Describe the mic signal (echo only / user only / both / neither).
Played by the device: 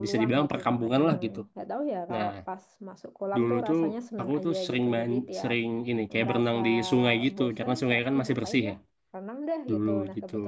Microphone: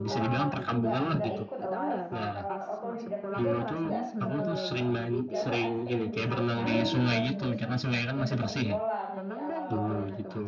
both